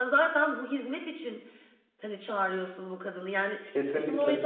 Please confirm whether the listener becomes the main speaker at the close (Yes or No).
No